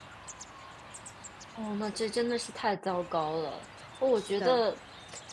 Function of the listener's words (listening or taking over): listening